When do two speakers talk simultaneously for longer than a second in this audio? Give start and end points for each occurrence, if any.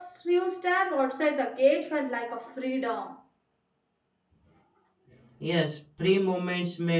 none

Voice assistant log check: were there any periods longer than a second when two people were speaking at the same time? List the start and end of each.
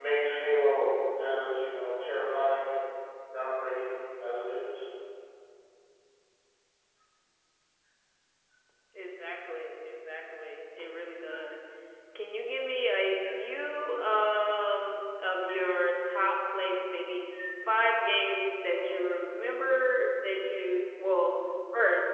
none

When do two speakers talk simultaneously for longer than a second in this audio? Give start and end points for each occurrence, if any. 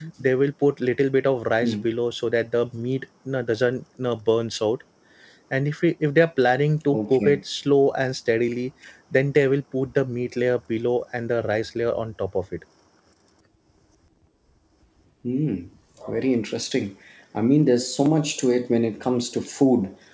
none

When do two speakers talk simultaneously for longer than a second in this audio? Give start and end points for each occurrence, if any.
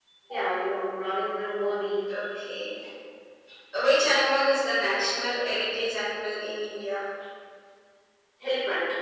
none

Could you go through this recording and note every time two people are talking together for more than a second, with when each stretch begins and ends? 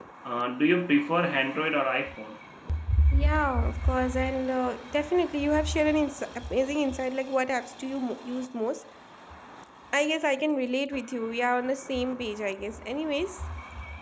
none

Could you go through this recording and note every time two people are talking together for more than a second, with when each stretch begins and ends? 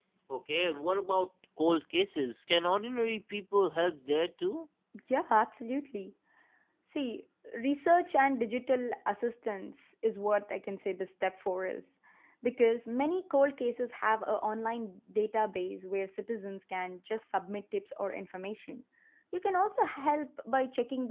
none

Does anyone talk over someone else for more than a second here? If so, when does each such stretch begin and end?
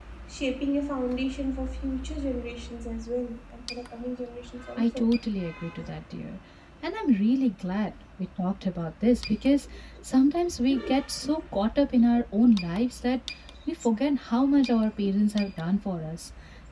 none

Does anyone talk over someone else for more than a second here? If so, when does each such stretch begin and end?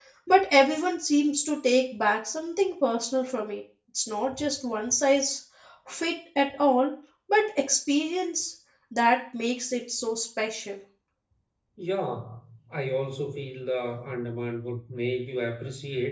none

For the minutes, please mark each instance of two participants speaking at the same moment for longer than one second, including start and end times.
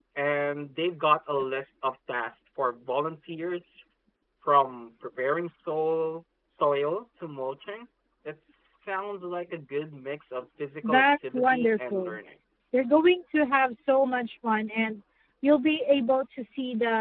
10.8-12.2

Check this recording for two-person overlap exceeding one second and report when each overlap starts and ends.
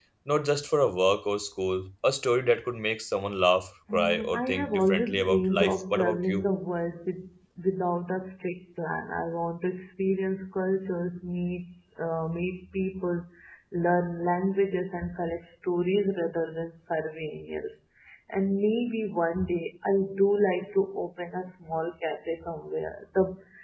3.9-6.4

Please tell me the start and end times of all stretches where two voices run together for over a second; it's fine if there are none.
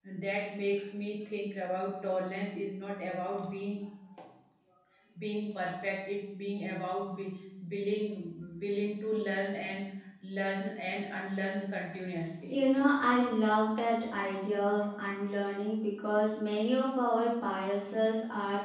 none

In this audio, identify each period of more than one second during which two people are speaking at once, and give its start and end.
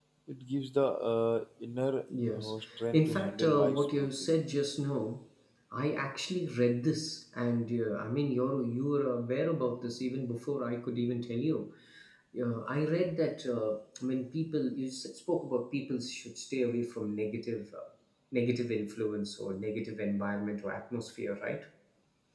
2.9-4.3

